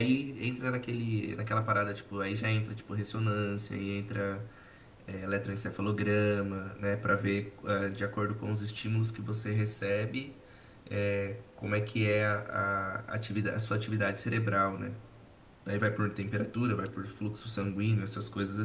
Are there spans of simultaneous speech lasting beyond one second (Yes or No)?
No